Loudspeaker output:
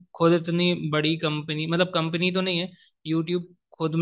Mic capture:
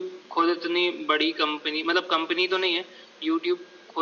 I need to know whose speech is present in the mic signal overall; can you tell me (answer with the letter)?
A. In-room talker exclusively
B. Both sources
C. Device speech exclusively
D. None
C